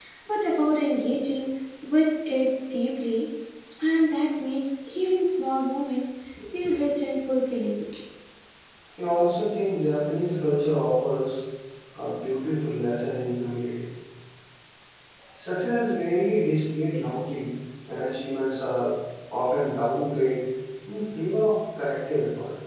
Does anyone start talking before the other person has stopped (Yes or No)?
No